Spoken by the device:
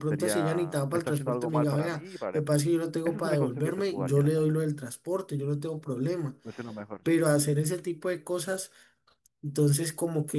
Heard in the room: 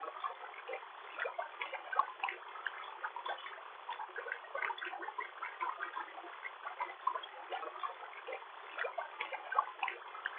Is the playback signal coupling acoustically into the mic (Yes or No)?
No